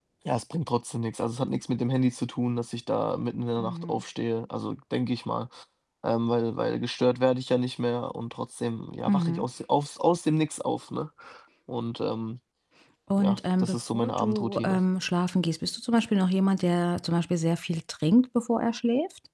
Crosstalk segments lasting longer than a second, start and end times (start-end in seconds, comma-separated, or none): 13.2-14.8